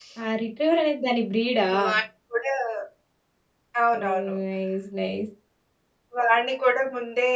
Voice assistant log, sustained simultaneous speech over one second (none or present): none